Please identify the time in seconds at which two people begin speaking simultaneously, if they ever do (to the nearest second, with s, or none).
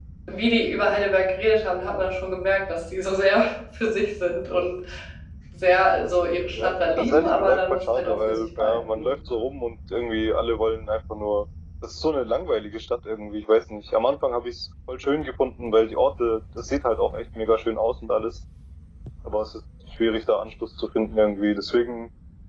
7 s